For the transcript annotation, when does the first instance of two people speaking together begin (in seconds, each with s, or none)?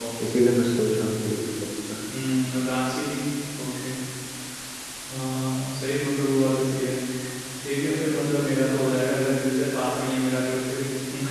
none